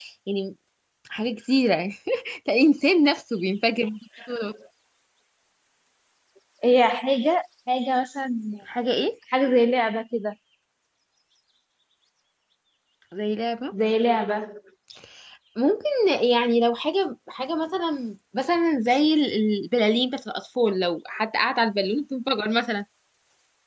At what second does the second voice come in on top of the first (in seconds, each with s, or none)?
none